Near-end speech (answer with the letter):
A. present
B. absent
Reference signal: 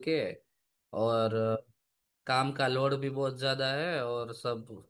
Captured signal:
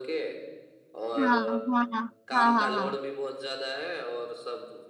A